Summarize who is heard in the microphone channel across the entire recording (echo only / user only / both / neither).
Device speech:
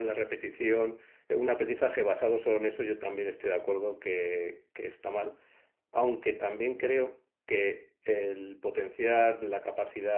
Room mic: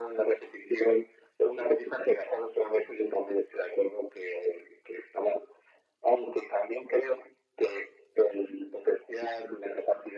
echo only